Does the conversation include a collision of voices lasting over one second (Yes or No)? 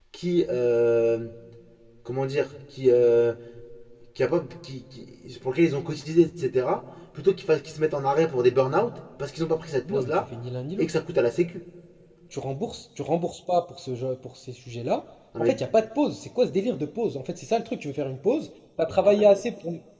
No